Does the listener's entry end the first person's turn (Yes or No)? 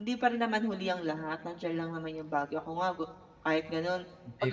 Yes